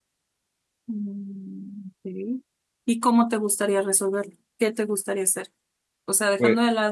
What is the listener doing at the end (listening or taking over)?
listening